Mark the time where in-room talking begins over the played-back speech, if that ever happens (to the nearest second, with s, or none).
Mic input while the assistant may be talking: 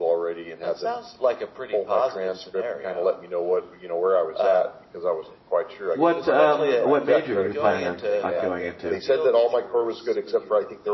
6 s